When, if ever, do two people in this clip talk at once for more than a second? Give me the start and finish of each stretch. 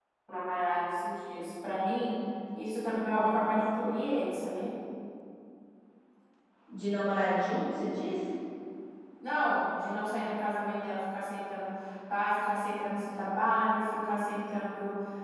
none

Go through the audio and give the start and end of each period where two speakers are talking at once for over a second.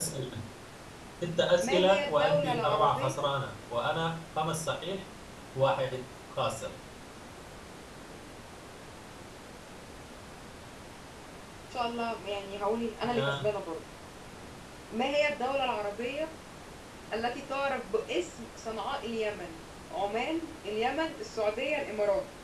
1.6-3.3

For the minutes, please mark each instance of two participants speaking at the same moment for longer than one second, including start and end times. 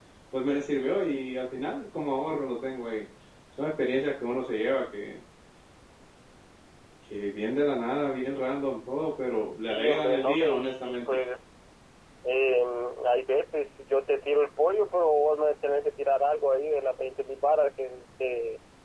9.7-11.2

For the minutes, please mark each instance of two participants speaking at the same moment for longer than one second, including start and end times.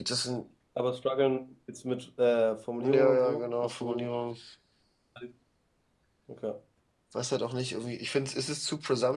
2.8-4.1

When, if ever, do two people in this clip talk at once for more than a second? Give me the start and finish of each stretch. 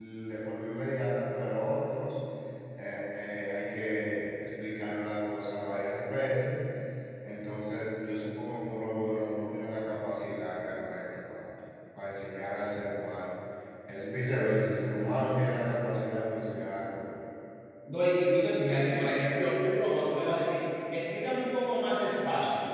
none

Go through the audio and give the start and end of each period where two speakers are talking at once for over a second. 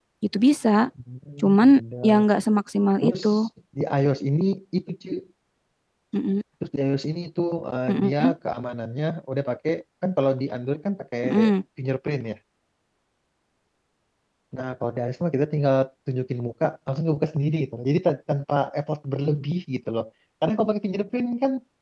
none

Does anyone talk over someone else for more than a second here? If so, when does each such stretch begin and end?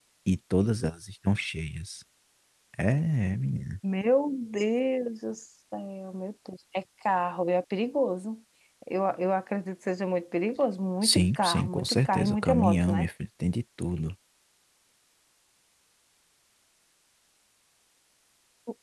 11.0-13.1

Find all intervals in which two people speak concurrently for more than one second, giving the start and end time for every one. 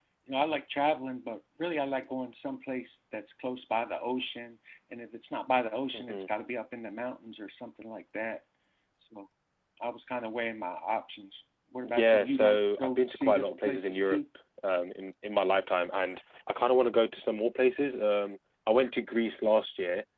11.9-14.2

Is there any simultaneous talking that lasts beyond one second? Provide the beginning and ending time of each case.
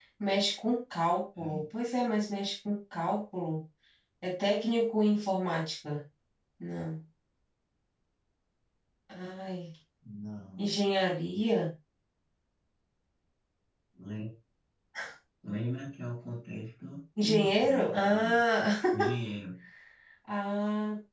17.2-18.4

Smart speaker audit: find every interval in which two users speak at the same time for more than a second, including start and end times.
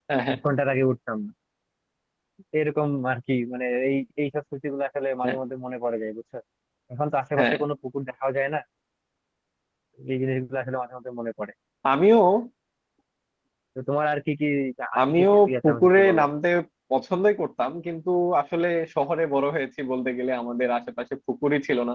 15.0-16.2

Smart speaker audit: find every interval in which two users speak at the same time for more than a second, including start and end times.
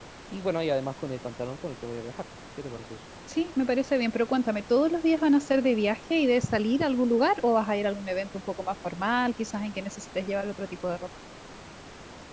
none

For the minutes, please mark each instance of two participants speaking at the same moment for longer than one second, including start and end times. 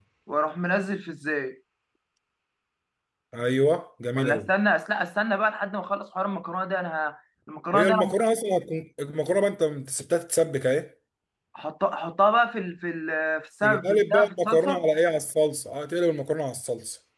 13.6-14.8

